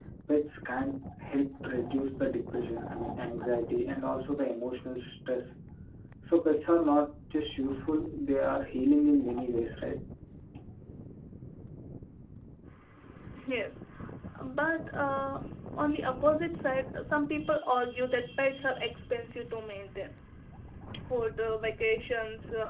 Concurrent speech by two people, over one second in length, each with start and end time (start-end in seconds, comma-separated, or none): none